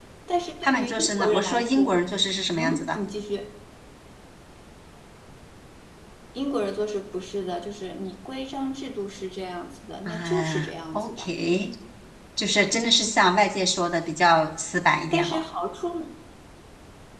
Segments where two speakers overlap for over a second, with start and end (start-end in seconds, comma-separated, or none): 0.6-1.9, 10.1-11.2